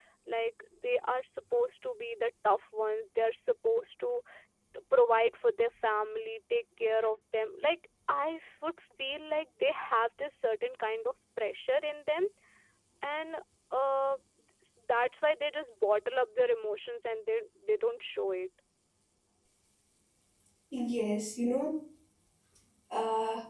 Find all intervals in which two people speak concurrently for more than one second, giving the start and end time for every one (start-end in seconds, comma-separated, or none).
none